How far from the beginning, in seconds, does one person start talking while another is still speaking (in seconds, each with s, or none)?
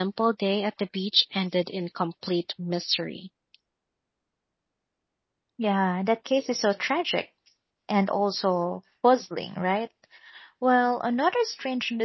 none